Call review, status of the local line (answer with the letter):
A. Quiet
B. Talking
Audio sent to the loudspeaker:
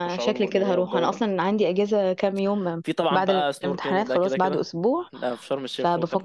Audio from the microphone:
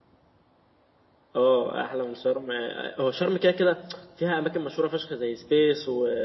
B